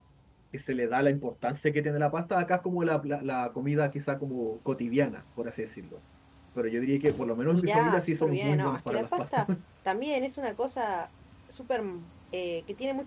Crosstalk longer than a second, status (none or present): present